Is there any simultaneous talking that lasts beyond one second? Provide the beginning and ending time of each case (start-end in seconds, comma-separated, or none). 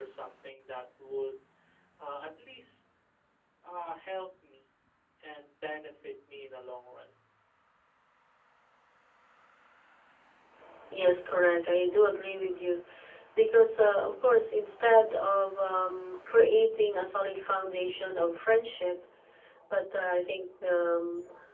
none